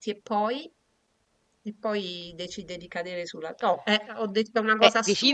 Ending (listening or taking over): taking over